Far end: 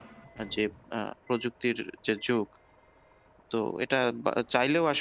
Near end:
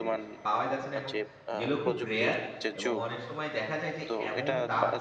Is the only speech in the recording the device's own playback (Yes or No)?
No